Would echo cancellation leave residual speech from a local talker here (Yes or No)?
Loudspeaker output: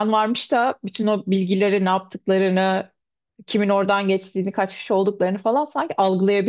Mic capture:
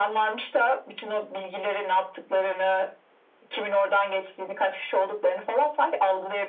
No